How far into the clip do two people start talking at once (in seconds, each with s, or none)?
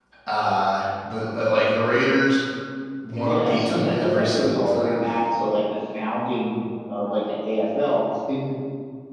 3.2 s